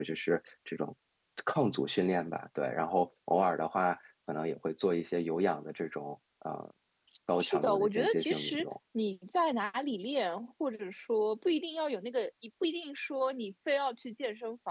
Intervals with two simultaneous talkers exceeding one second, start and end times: 7.4-8.6

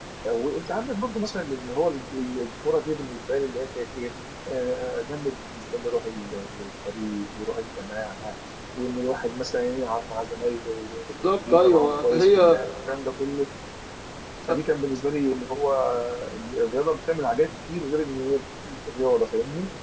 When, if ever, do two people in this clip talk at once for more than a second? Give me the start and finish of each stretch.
11.4-12.6

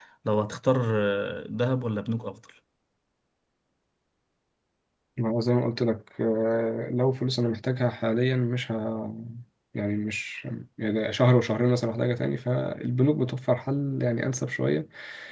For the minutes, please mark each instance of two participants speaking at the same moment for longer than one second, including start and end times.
none

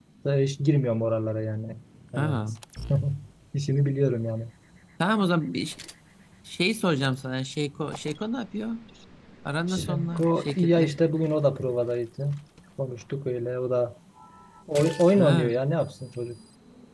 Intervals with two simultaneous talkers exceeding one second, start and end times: 9.7-10.9

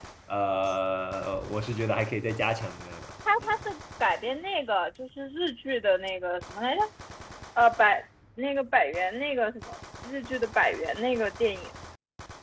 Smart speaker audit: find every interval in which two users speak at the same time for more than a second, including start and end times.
none

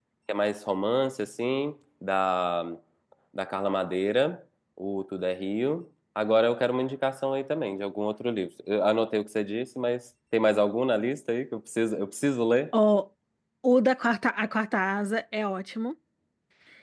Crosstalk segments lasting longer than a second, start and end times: none

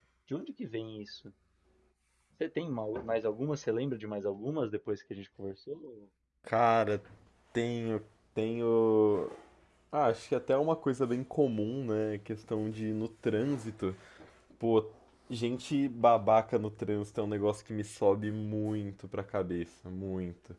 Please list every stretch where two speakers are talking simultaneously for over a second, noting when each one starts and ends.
none

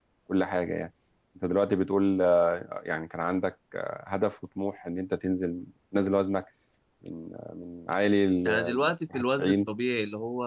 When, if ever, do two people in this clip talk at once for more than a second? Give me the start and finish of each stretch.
8.4-9.7

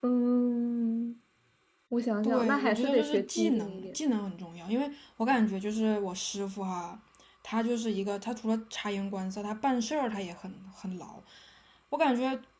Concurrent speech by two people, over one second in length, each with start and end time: 2.2-4.0

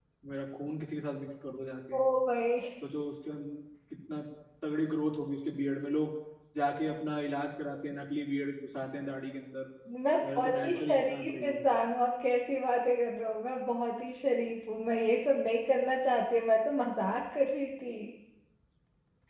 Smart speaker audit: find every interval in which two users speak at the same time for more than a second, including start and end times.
10.2-11.6

